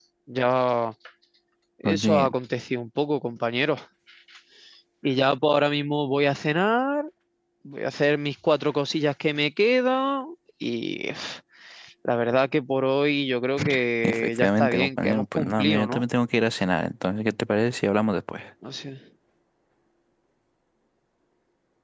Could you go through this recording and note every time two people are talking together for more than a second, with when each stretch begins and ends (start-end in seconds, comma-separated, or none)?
14.0-16.0